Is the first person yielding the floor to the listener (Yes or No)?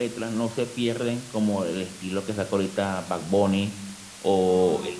No